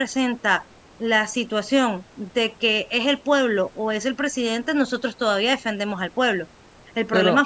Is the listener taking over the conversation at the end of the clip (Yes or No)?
No